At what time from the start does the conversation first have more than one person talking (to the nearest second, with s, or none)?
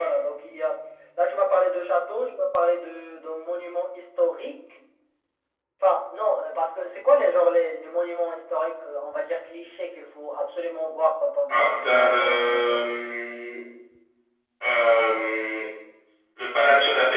11 s